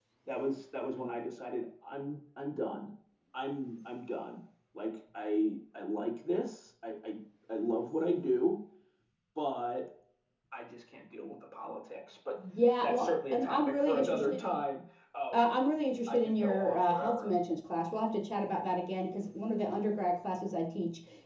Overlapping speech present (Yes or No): Yes